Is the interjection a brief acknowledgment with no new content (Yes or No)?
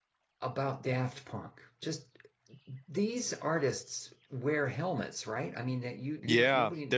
No